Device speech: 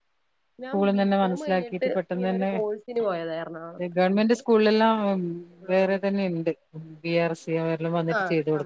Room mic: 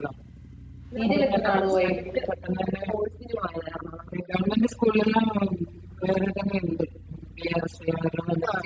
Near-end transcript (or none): സീരിയലൊക്കെ കാണുവോ വൈകിട്ട്